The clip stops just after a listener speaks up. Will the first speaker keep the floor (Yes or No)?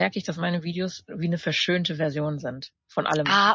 No